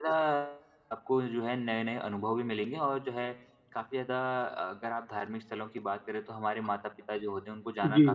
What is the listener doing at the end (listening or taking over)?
listening